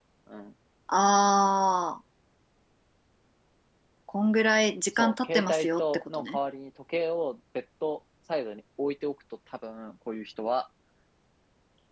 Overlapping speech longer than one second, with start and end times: 5.0-6.4

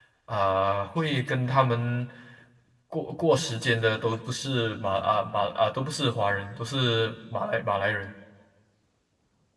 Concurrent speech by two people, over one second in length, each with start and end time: none

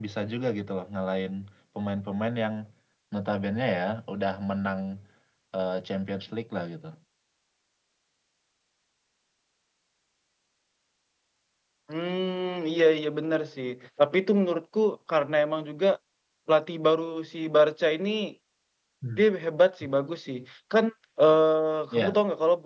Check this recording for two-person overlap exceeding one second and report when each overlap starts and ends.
none

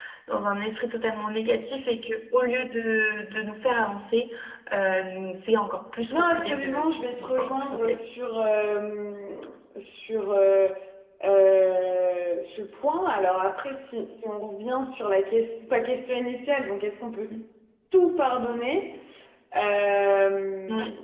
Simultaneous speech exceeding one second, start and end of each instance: 6.1-8.0

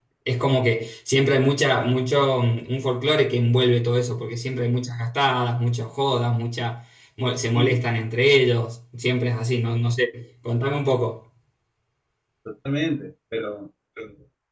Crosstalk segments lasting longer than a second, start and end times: none

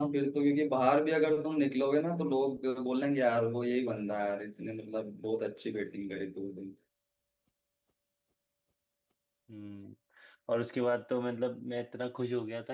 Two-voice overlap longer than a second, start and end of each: none

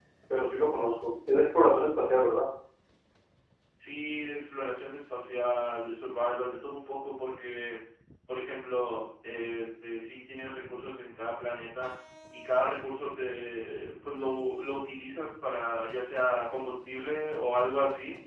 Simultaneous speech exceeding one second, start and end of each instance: none

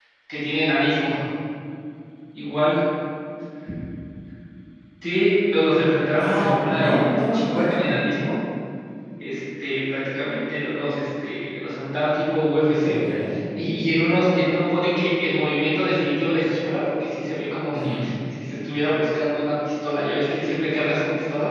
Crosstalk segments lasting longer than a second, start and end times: 6.2-8.0

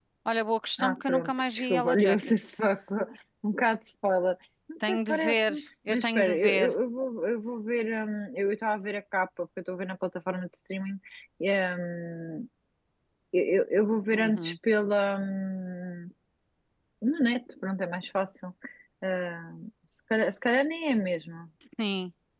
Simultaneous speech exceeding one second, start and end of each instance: 0.8-2.6, 4.9-6.7

